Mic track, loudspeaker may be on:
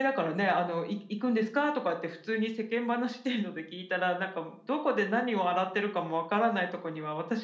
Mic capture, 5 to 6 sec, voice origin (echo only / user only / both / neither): echo only